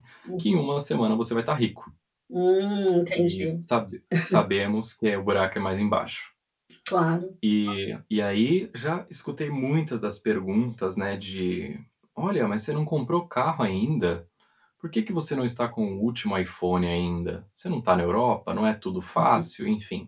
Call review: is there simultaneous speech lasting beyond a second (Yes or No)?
No